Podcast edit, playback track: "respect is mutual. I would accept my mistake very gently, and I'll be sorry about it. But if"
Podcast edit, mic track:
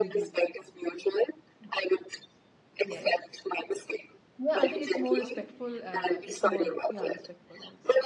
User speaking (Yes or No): Yes